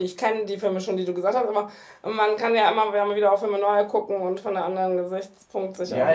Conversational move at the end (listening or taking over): taking over